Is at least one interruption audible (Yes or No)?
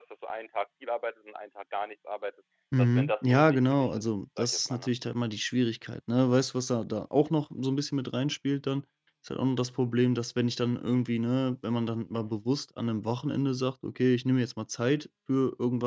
Yes